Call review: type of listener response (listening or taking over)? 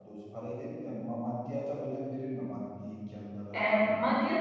taking over